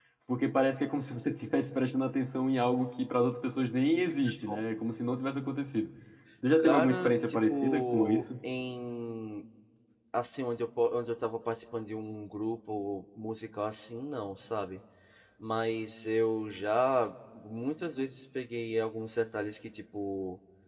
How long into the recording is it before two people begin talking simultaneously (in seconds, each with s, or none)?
6.6 s